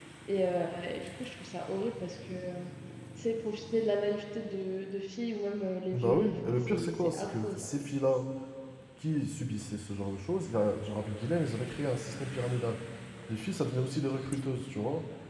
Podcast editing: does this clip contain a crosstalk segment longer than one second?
Yes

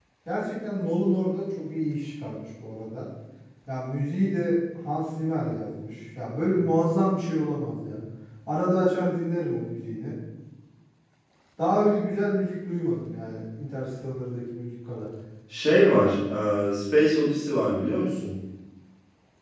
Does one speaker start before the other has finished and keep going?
No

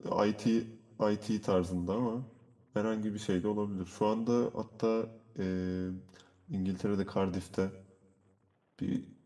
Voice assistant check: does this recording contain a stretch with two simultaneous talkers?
No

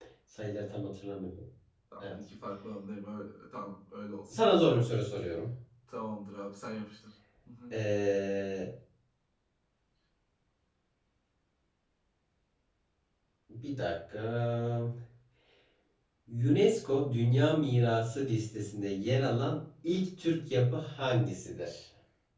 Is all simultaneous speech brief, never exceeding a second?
Yes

